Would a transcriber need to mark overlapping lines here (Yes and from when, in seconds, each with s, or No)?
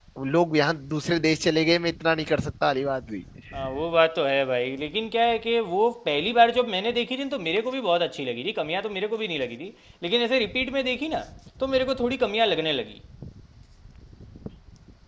No